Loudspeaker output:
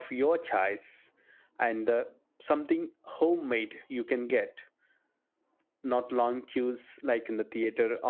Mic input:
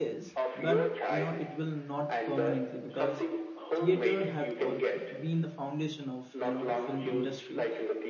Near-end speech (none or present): present